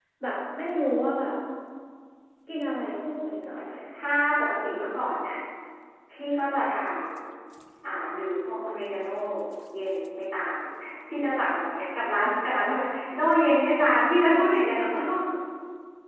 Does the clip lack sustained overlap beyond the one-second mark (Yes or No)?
Yes